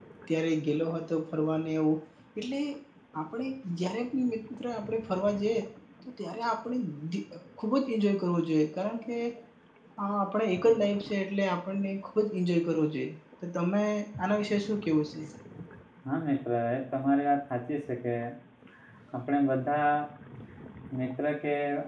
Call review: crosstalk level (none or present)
none